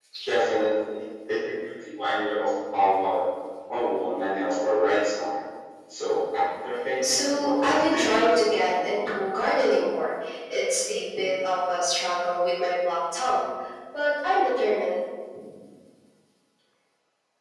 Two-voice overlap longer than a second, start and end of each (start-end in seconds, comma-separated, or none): 7.0-8.9